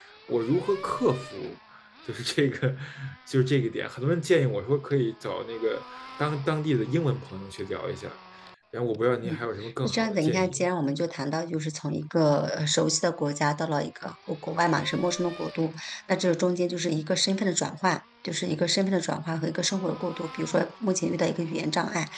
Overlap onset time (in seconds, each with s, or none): 9.2 s